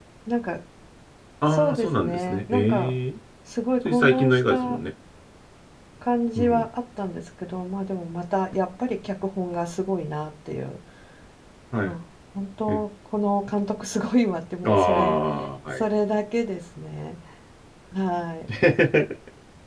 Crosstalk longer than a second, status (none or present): present